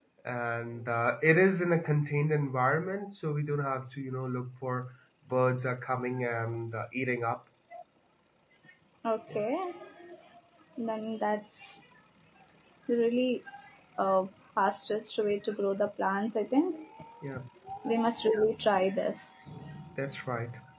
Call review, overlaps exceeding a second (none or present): none